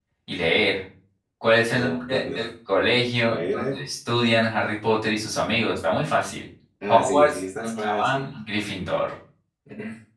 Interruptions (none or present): present